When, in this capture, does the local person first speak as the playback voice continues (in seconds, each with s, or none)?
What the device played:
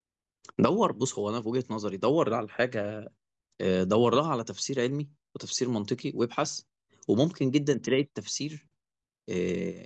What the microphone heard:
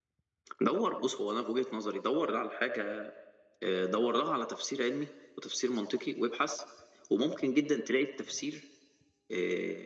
none